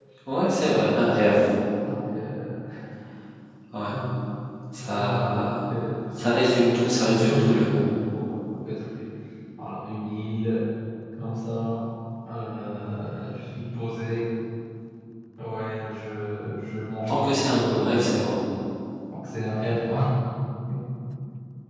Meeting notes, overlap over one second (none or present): present